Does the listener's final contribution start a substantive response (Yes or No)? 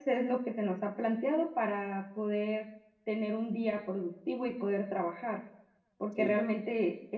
No